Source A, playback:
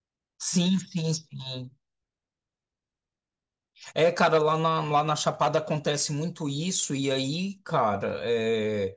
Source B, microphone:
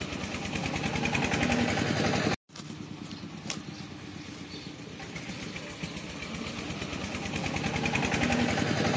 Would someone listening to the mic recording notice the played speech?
No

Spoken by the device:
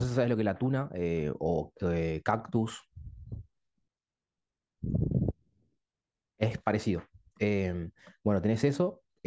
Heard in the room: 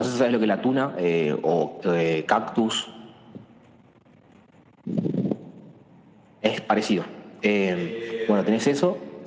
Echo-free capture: No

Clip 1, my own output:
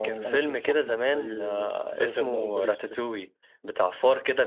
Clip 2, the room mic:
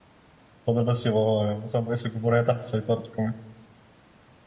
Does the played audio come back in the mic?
No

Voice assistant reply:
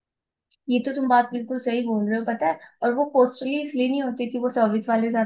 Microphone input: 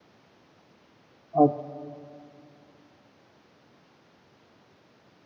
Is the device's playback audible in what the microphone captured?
No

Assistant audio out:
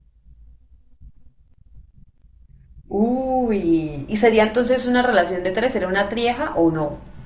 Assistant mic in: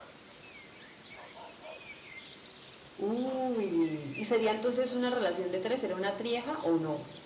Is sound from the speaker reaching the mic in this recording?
Yes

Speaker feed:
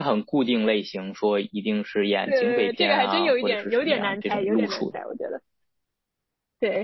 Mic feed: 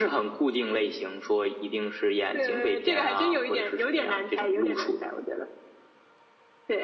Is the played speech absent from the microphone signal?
No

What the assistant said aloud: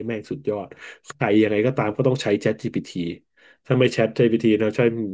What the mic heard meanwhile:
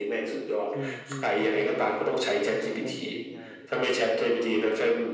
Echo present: Yes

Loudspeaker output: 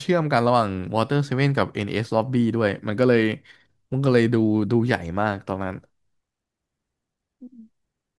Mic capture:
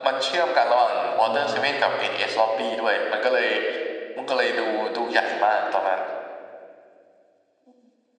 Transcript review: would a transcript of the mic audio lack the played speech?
No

